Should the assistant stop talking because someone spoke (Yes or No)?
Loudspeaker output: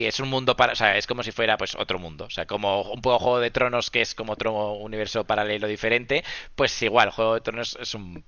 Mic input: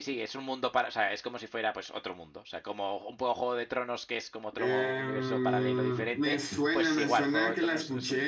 Yes